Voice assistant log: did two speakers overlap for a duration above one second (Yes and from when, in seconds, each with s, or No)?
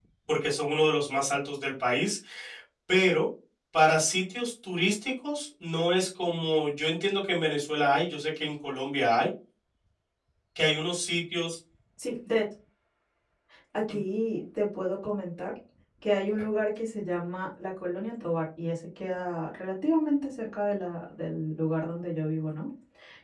No